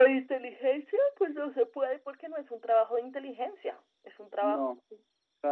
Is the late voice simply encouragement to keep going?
No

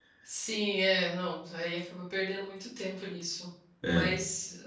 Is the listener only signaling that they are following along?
Yes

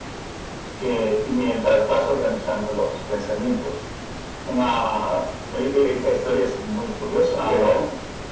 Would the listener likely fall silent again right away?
Yes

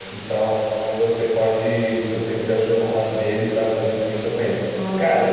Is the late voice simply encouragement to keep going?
Yes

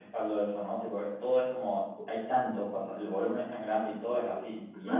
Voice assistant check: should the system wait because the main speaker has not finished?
No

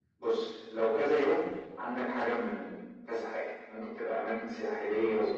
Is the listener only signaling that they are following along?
Yes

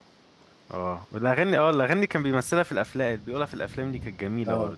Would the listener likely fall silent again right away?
No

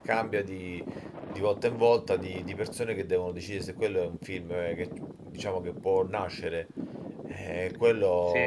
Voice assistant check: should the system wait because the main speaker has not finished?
Yes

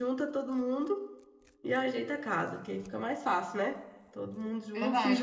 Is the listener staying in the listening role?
No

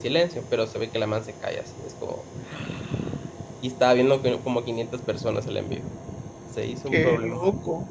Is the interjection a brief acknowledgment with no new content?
No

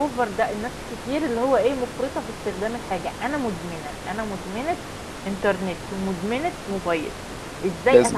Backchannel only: Yes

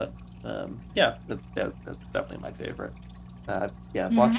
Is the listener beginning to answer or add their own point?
Yes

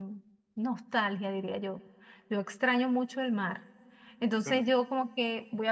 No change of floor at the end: Yes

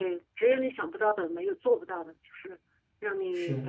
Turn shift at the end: No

